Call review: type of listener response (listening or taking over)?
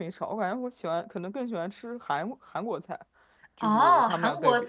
taking over